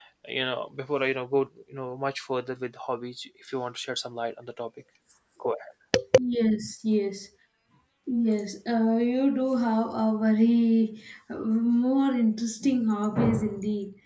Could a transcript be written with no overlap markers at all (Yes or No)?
Yes